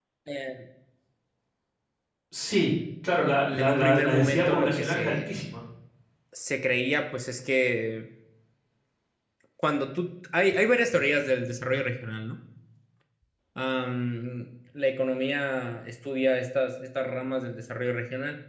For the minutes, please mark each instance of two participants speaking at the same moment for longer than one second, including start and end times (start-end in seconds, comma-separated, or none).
3.6-5.4